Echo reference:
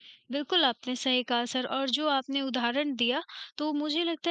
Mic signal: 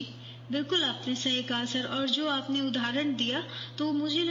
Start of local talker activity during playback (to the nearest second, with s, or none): none